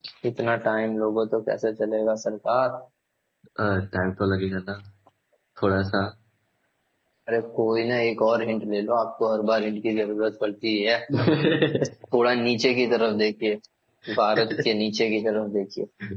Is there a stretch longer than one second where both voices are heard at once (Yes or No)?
No